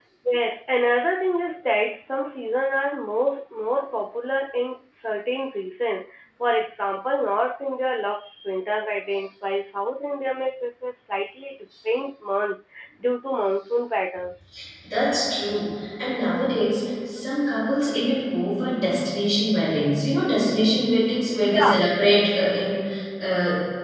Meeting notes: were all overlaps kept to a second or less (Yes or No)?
Yes